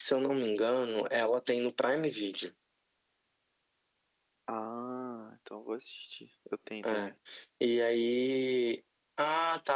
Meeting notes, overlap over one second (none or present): none